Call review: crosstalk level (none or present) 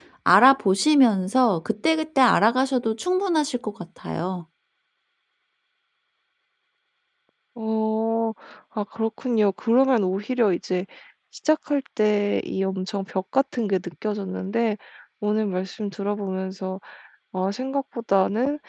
none